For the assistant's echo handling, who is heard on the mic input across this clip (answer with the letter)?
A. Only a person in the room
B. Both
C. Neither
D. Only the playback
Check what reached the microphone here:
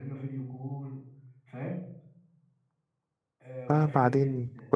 B